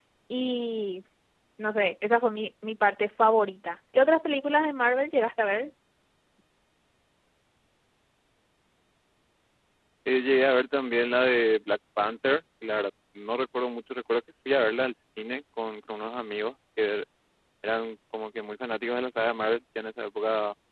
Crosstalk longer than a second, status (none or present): none